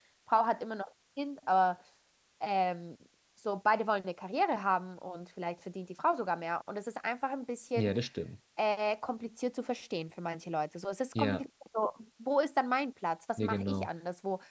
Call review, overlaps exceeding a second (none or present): none